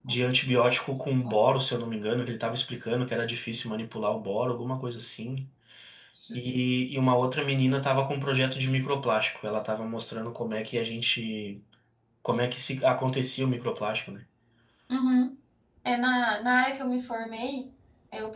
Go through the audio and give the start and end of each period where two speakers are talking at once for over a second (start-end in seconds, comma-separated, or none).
none